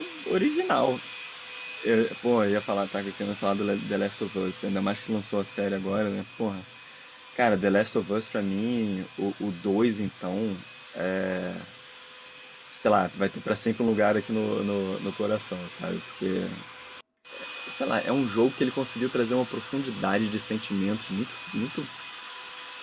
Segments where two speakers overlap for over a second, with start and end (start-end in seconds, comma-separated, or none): none